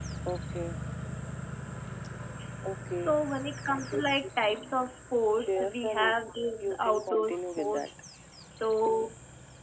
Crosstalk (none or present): present